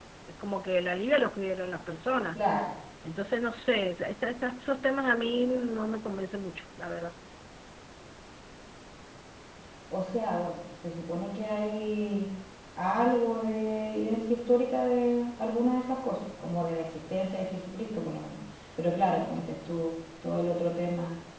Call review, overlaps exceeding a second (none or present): none